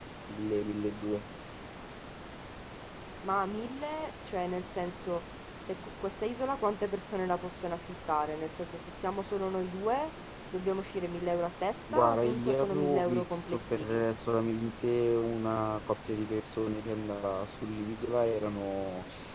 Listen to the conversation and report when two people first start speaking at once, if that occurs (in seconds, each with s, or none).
11.9 s